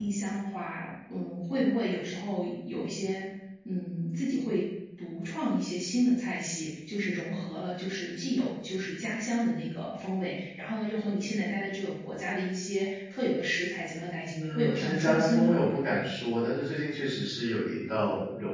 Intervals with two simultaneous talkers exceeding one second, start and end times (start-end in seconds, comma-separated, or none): 14.4-15.6